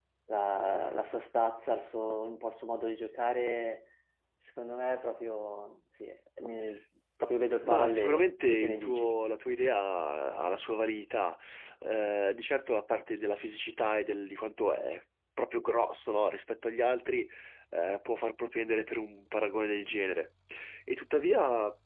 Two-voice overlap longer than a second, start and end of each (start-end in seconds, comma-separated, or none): 7.6-9.1